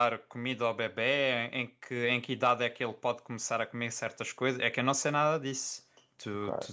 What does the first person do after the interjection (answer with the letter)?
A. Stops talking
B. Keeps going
A